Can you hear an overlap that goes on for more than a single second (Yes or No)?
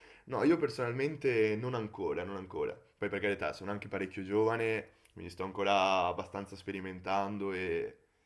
No